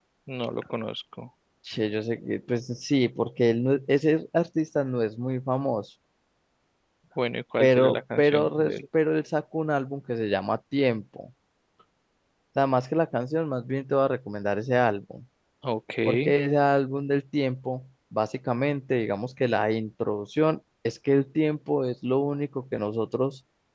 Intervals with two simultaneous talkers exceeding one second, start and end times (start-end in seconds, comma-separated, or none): 7.6-8.8